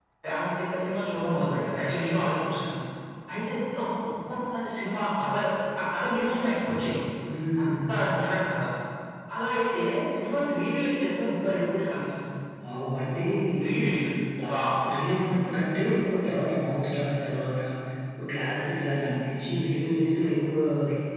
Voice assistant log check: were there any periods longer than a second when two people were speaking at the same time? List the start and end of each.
none

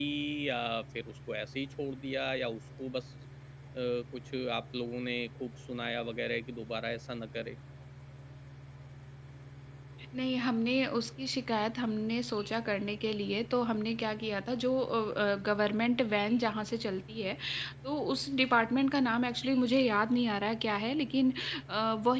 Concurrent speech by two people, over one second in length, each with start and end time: none

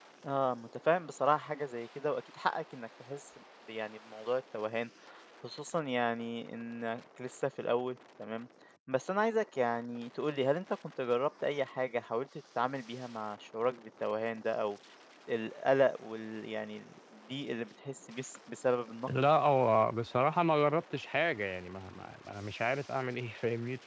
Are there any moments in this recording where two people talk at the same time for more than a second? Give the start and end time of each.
none

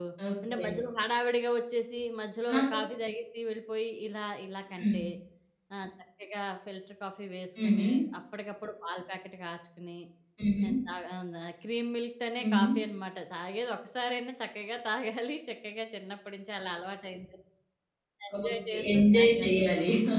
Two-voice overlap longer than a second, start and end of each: 18.4-19.6

